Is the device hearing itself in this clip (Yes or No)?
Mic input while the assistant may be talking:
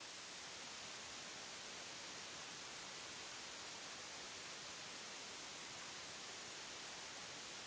No